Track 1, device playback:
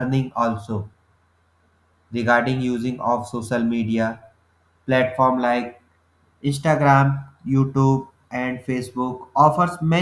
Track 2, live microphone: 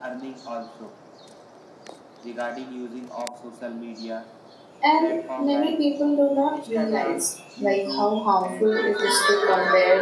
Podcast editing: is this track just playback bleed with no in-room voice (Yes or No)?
No